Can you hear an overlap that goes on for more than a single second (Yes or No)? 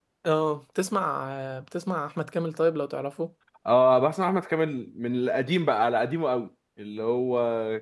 No